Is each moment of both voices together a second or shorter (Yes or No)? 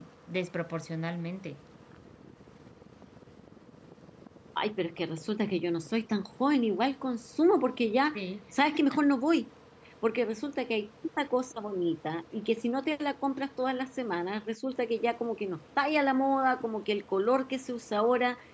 Yes